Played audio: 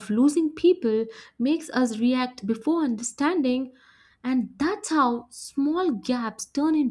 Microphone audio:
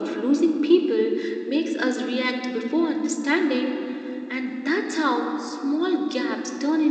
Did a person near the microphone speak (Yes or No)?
No